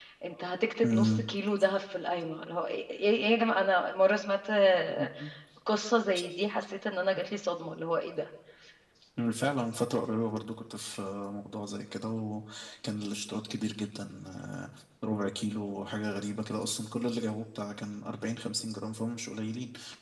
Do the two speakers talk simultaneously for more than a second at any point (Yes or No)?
No